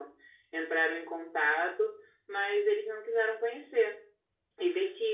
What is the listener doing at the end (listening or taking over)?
listening